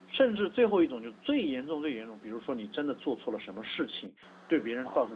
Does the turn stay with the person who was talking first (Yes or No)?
Yes